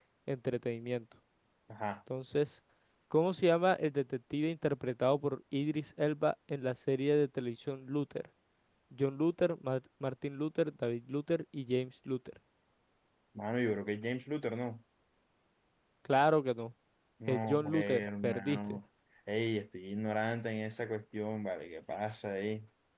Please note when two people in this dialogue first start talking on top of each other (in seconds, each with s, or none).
17.3 s